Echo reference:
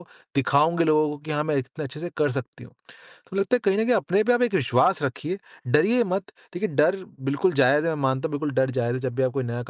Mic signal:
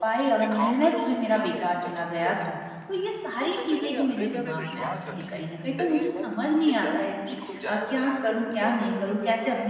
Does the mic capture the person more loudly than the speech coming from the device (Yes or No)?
Yes